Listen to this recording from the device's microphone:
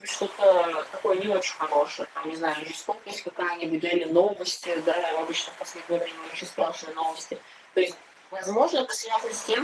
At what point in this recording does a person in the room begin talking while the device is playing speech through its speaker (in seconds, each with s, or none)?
none